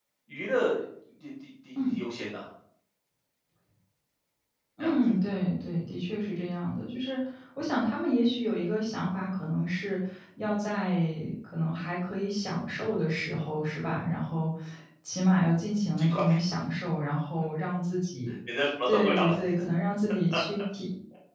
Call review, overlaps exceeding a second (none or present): none